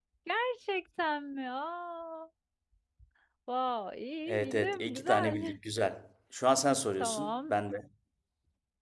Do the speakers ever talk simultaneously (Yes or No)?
Yes